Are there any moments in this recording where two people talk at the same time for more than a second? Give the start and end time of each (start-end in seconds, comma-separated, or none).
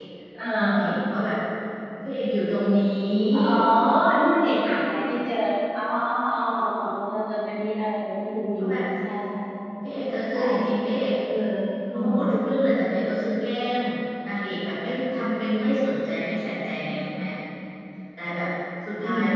none